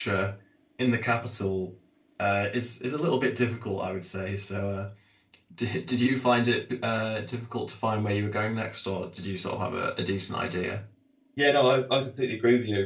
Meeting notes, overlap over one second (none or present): none